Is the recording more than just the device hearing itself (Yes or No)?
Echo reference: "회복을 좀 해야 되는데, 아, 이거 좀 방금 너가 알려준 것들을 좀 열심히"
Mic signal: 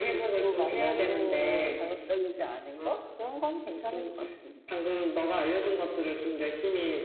Yes